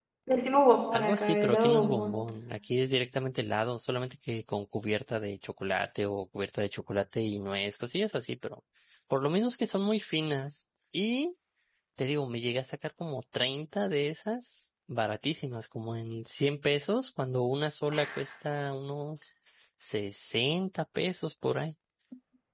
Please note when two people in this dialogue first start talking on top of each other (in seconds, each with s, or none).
0.9 s